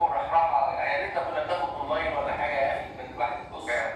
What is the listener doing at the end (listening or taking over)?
listening